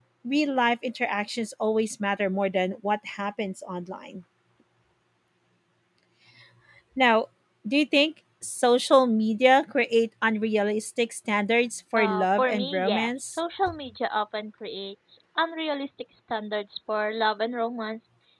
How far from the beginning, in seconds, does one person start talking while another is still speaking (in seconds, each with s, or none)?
12.0 s